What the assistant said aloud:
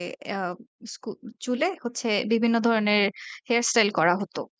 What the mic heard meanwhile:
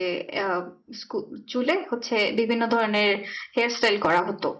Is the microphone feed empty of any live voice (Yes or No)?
Yes